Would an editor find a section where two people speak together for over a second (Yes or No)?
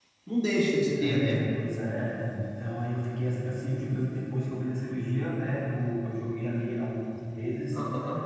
No